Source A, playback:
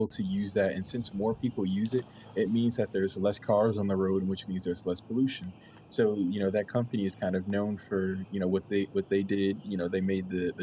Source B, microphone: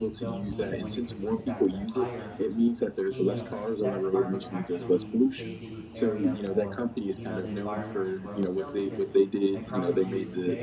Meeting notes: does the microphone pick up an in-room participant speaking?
Yes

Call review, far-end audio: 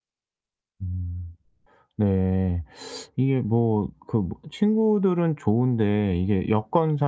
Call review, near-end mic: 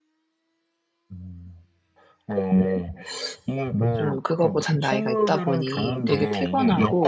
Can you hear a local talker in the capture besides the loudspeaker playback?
Yes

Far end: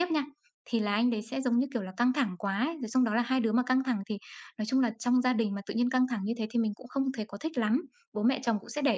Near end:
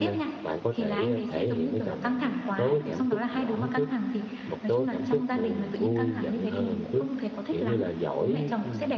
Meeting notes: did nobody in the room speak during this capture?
No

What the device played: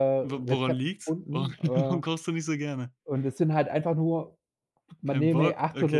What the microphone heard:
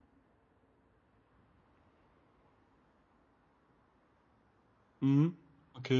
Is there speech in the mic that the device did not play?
Yes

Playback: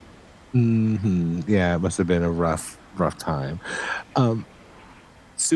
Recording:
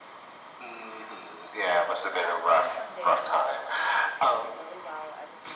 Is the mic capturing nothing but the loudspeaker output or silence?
No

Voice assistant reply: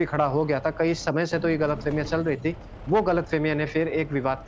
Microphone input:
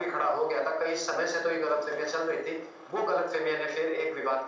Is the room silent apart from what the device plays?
Yes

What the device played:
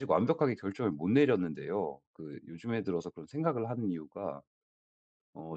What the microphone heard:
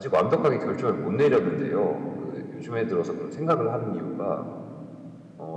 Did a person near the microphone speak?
No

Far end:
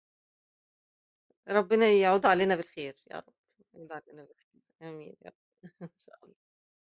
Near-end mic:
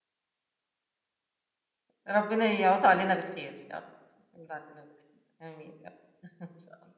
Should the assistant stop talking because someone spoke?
No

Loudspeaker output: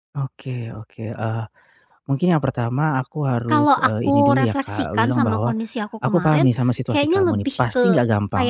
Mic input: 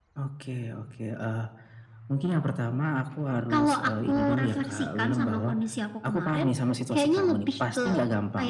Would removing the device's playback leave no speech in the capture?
Yes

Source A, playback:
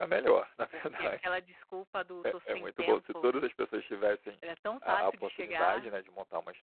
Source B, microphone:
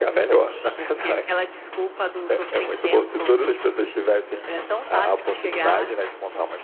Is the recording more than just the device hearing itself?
No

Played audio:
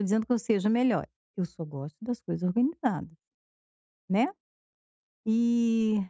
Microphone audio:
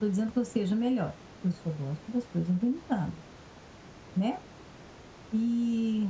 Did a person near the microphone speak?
No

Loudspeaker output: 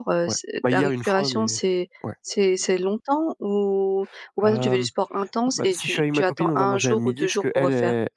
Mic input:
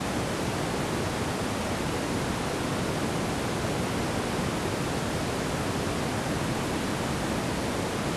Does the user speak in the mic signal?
No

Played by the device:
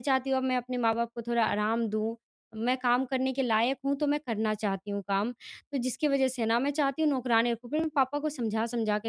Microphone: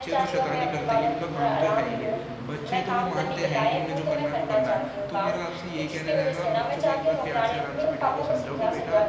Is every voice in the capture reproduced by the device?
No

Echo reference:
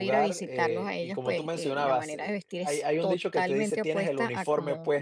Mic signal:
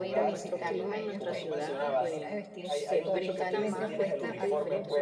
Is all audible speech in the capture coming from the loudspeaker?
No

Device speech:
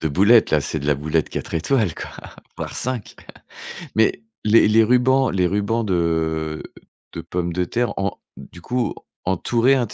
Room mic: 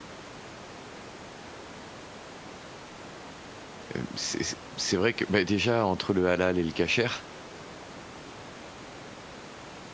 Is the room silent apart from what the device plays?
No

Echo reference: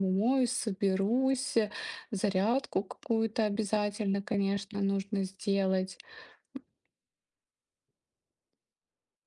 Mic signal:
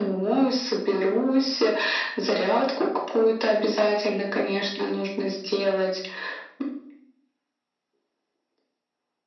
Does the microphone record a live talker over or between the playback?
No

